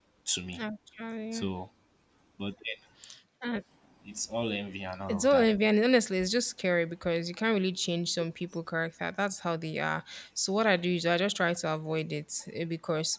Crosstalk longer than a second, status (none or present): none